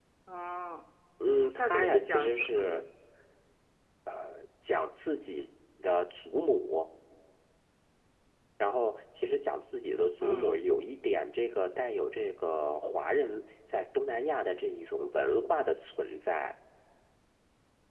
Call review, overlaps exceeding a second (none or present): present